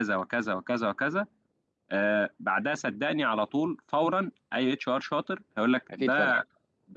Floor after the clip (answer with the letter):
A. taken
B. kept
B